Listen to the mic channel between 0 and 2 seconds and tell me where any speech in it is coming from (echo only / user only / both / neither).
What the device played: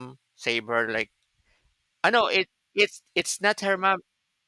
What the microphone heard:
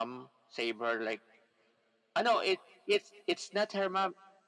echo only